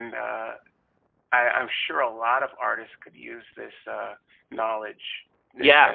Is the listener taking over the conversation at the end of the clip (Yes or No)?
Yes